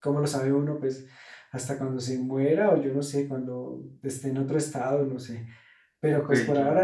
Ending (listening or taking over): listening